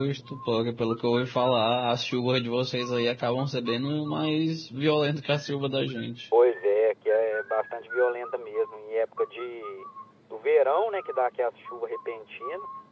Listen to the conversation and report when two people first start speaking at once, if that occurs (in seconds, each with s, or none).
none